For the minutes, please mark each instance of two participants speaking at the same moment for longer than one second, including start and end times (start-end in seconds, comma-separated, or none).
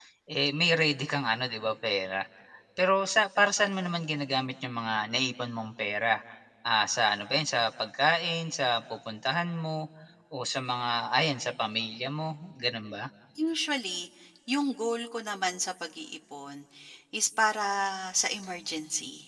none